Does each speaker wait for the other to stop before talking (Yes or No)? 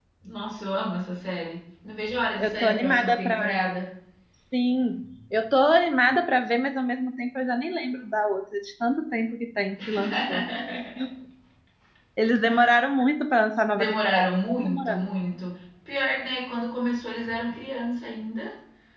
No